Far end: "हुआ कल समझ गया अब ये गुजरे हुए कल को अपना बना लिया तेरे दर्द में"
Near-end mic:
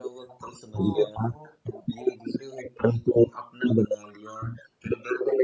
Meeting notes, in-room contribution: present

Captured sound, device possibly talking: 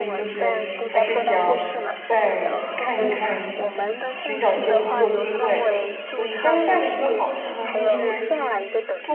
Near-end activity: present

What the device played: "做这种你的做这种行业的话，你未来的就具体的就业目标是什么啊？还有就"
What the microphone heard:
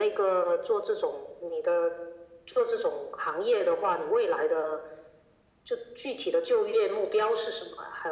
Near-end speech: none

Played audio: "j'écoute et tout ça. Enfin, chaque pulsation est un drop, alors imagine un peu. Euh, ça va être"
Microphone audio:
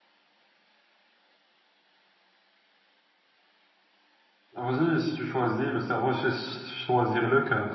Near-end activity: present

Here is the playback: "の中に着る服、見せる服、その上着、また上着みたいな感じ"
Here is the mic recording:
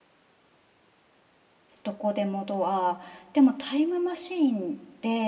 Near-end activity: present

